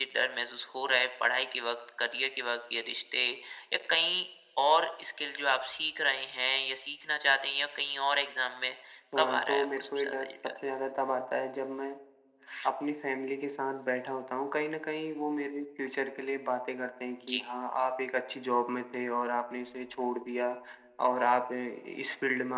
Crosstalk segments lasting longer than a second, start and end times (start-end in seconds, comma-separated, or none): 9.2-10.5